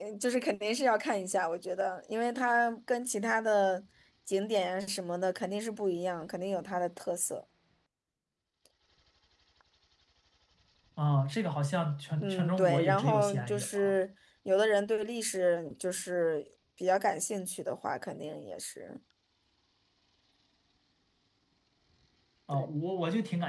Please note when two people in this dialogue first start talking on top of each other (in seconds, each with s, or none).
12.2 s